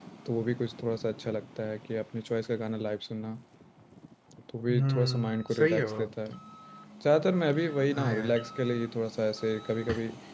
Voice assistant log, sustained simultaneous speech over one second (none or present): present